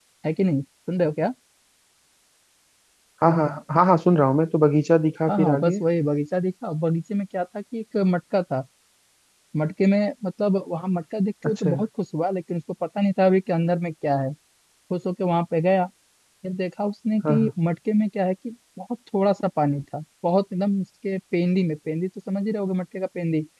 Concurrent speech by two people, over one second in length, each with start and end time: none

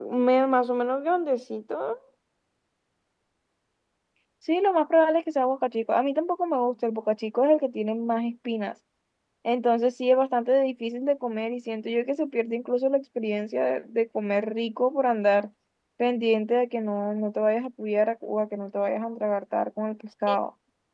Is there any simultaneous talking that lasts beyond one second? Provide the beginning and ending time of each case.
none

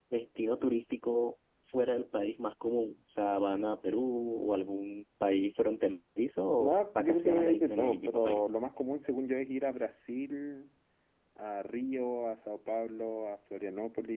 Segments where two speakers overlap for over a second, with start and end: 6.6-8.4

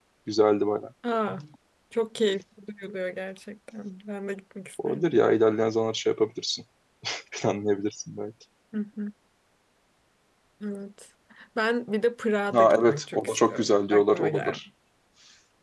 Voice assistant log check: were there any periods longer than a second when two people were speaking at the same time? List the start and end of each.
12.5-14.6

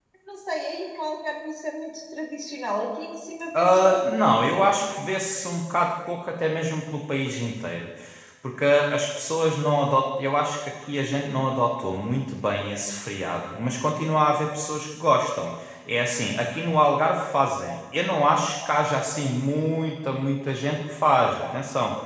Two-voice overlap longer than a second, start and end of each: 3.6-4.9

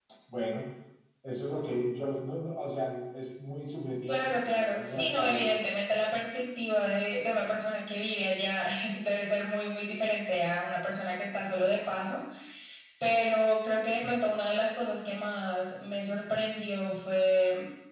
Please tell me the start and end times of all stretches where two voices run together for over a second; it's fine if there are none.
4.1-5.5

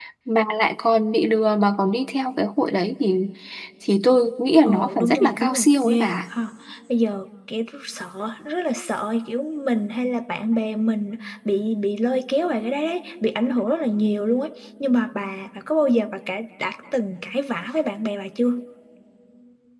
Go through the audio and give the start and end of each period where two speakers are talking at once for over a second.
4.7-6.2

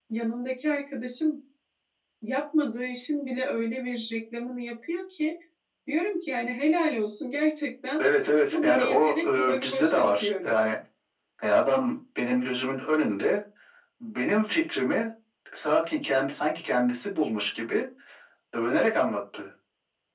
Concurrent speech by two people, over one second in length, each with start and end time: 8.5-10.5

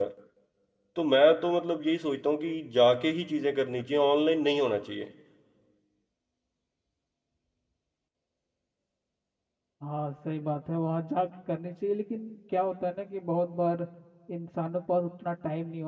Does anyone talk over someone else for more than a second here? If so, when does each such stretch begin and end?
none

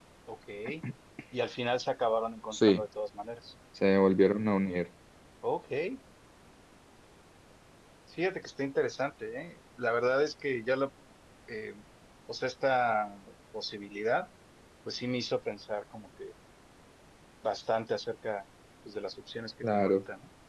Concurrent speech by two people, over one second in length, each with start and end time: none

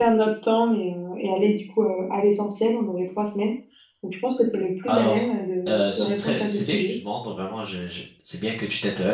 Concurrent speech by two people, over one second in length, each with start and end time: 5.7-6.9

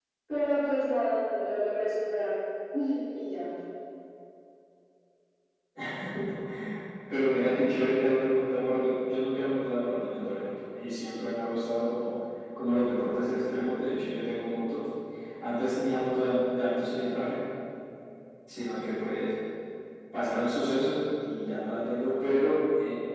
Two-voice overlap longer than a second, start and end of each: none

